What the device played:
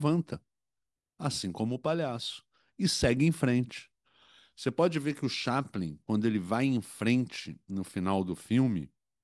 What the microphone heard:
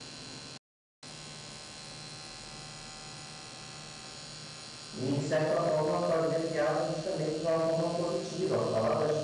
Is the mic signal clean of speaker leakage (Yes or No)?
Yes